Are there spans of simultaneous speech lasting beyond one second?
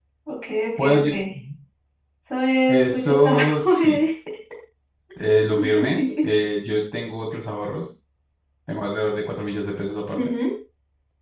Yes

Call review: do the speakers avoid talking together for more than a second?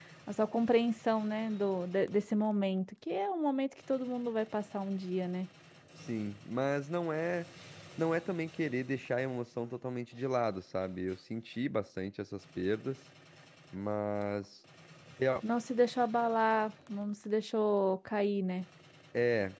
Yes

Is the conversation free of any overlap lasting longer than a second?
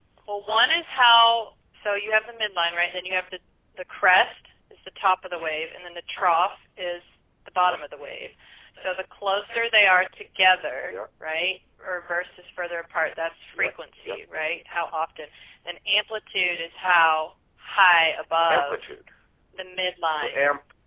Yes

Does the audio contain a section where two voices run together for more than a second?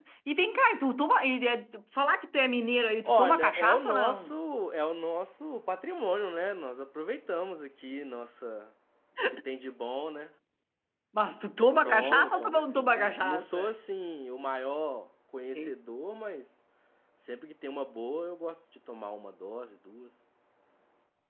Yes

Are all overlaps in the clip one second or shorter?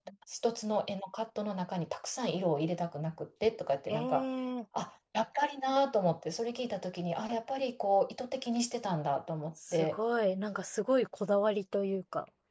Yes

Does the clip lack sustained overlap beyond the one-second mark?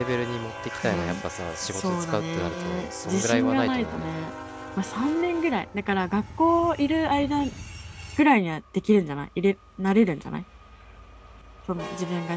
No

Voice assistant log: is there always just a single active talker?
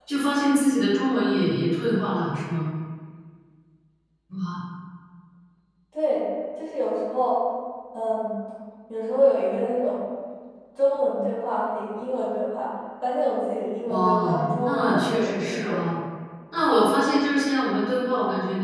No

